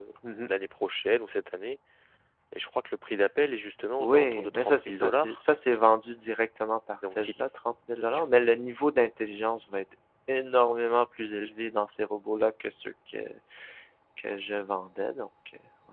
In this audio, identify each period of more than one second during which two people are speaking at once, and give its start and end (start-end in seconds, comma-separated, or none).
4.0-5.4